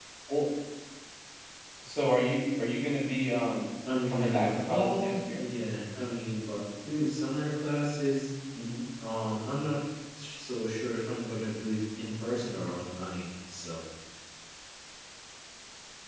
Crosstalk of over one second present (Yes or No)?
Yes